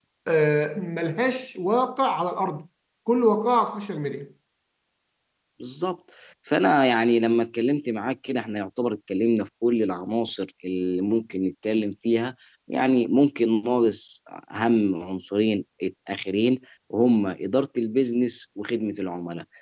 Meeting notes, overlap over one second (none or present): none